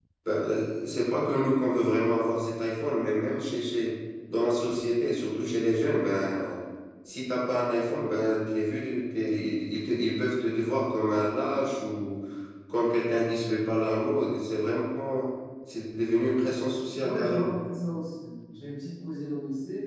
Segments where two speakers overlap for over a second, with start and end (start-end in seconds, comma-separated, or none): none